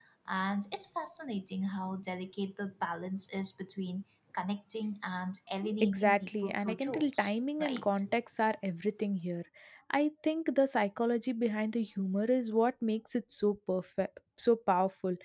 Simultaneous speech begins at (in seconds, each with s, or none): 5.6 s